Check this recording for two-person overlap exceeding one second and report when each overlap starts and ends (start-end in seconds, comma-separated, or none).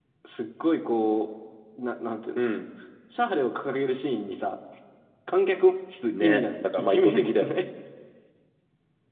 6.2-7.6